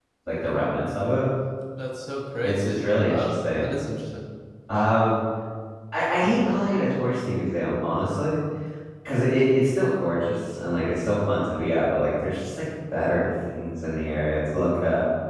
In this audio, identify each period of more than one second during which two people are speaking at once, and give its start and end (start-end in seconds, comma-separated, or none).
2.4-3.7